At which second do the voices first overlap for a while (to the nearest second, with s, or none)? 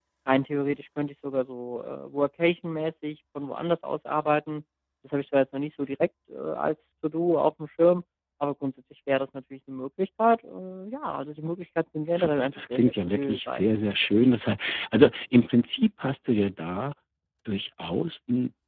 12 s